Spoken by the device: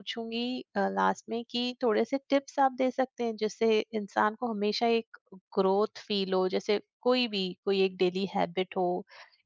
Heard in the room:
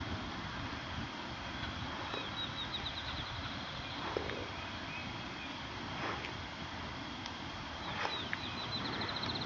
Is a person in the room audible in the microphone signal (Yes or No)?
No